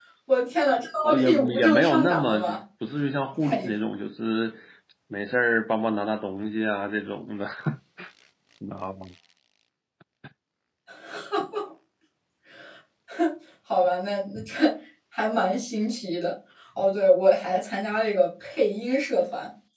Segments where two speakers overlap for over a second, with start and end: 1.0-2.6

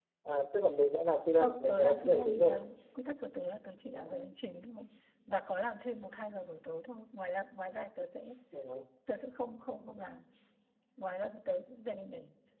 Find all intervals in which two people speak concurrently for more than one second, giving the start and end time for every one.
1.4-2.6

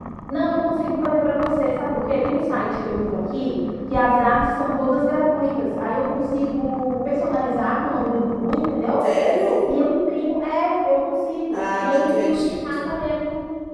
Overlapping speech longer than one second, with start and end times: 11.5-12.9

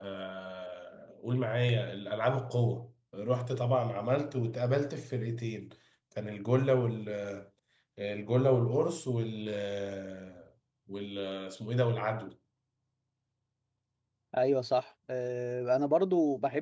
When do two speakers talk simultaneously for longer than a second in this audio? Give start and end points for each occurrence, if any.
none

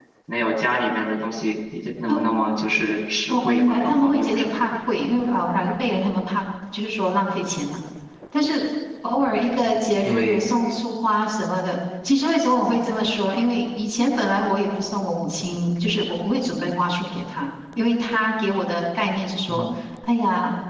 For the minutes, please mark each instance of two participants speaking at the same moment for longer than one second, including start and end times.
3.3-4.7

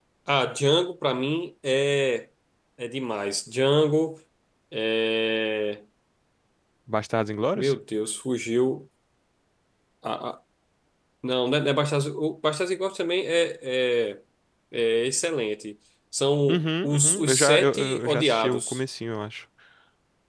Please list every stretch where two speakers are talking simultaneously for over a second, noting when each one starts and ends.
16.5-18.8

